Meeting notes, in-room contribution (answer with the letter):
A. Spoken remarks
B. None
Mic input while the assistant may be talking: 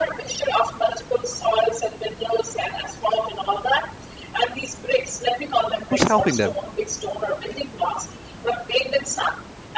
A